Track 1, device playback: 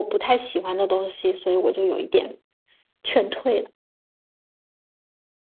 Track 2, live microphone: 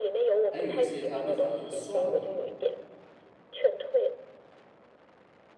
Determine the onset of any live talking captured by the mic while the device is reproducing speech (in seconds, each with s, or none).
0.5 s